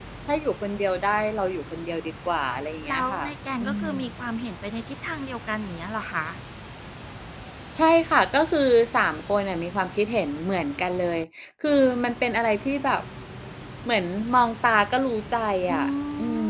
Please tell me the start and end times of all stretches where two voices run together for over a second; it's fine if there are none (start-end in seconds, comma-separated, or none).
none